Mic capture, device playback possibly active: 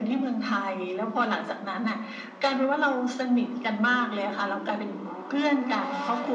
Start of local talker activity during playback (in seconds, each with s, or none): none